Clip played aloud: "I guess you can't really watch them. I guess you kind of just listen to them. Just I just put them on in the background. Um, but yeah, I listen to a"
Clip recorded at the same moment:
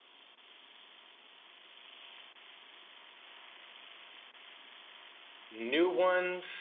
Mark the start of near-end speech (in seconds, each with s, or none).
5.5 s